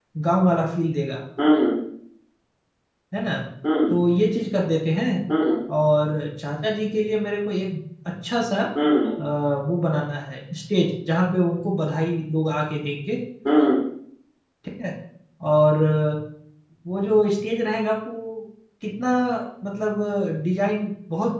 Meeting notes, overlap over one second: none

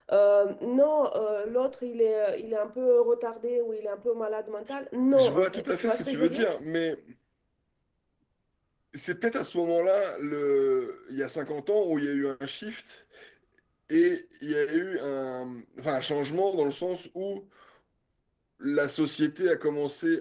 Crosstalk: present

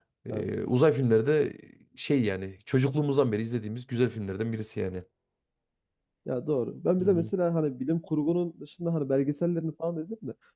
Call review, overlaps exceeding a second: none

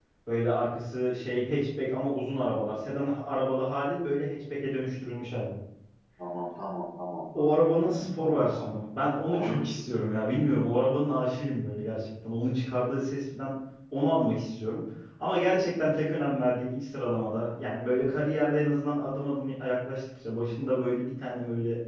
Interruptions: present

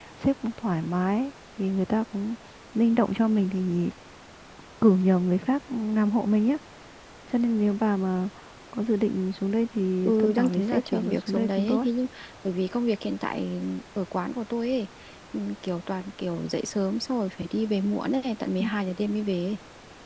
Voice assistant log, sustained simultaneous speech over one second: present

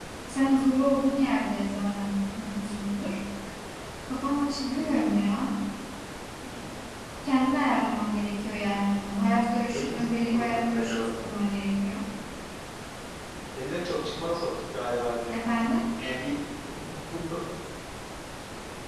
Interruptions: present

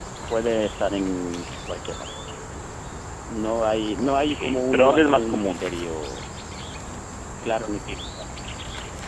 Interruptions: present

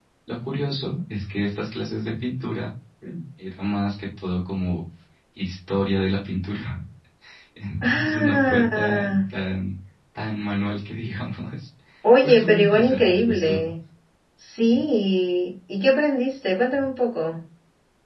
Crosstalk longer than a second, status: present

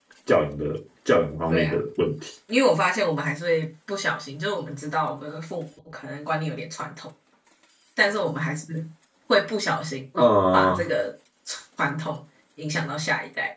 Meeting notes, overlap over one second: none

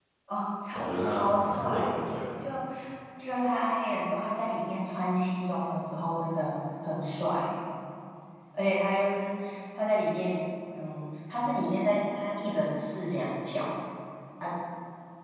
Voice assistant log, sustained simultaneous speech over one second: present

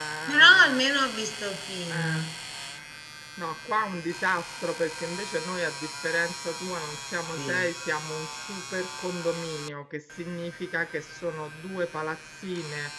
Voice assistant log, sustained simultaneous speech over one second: none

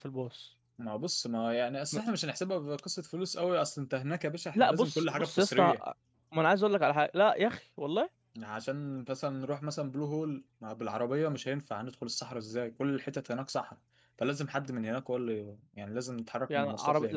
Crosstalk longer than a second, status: present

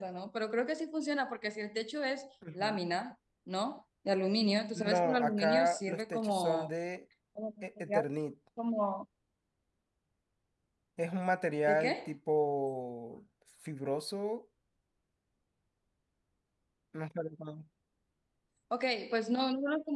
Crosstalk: present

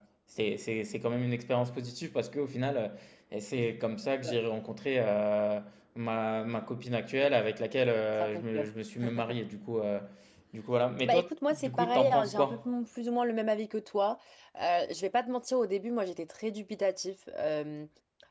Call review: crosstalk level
present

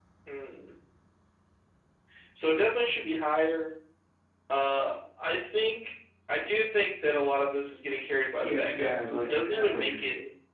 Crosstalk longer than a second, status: present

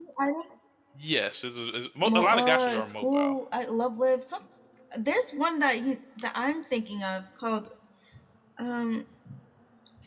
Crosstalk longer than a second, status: present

